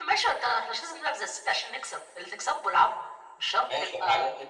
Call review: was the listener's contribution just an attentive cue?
No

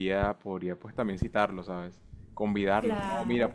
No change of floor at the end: Yes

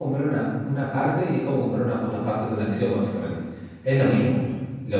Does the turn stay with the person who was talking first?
Yes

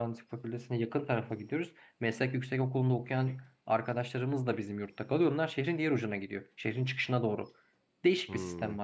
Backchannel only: Yes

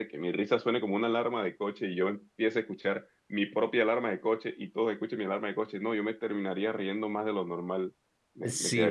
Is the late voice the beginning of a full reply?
Yes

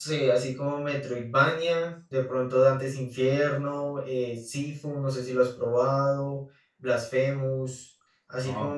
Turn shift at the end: No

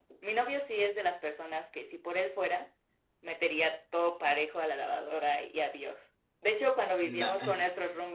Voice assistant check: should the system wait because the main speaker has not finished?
Yes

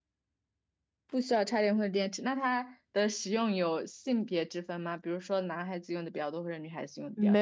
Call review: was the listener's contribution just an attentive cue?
No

